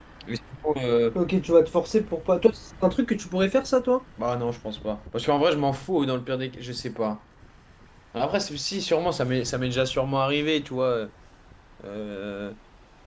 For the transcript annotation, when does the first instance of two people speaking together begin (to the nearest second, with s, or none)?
none